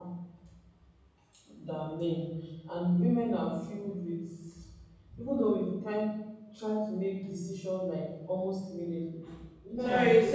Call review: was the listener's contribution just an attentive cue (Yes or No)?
No